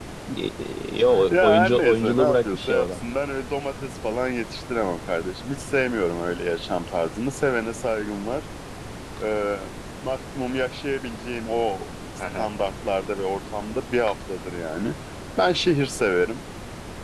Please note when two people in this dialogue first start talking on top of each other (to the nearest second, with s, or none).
1 s